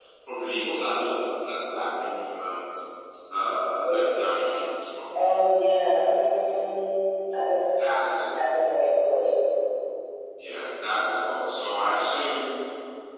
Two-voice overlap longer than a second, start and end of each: none

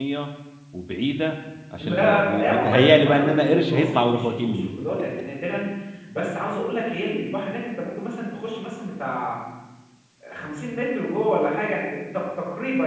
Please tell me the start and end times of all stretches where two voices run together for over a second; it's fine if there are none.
1.8-4.7

